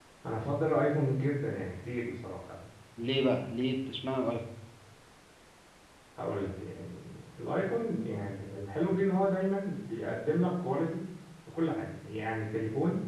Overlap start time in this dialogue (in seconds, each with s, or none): none